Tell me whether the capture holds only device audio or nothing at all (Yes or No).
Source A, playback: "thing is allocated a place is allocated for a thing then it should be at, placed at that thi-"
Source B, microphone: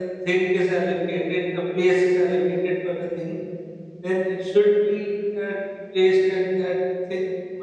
Yes